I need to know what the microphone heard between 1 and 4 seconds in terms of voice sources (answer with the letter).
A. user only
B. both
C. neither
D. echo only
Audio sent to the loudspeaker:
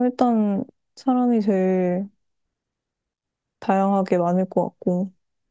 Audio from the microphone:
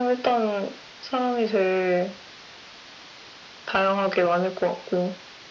D